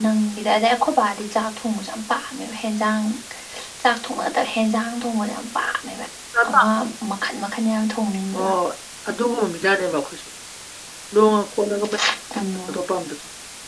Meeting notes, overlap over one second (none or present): none